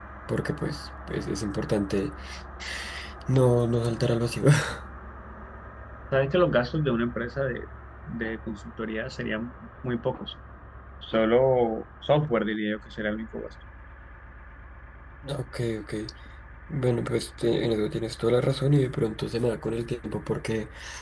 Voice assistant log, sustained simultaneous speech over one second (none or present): none